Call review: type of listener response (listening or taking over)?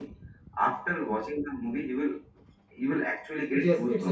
taking over